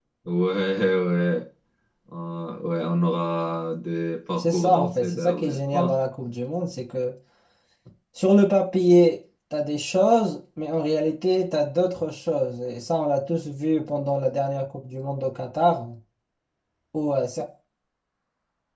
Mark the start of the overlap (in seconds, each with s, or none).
4.4 s